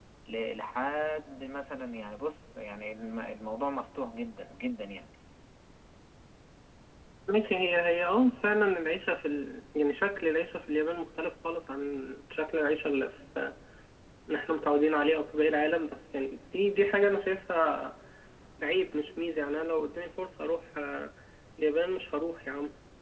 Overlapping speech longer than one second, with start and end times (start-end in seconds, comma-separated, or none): none